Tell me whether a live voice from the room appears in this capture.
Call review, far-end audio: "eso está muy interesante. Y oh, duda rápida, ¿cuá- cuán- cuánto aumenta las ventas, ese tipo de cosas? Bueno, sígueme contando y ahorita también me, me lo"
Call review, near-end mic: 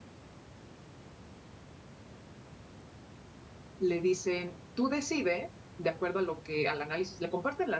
Yes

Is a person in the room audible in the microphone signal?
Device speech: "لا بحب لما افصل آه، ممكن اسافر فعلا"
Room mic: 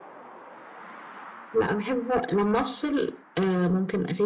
No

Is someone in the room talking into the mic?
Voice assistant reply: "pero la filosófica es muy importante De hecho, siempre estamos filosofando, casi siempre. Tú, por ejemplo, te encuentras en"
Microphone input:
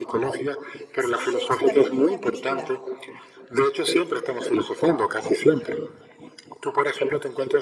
Yes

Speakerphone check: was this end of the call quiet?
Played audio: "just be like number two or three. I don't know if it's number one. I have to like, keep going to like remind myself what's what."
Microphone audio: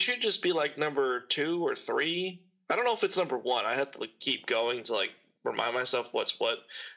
Yes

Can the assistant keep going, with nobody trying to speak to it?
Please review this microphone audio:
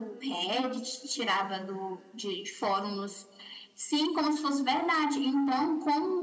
Yes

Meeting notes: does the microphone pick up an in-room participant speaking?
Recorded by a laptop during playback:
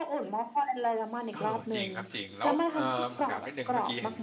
Yes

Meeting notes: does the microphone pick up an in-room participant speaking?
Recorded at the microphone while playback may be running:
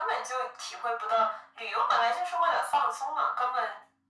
No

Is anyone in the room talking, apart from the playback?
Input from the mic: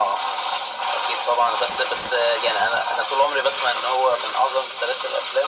No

